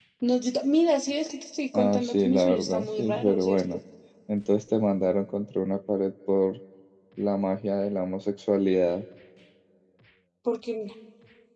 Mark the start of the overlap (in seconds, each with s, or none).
1.7 s